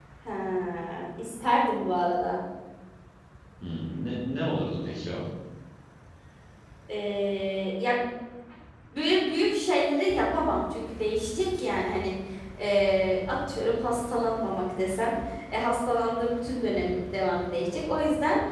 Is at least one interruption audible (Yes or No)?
No